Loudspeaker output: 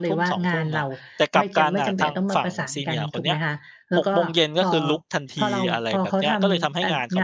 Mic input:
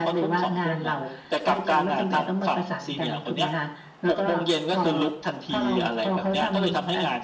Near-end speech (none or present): none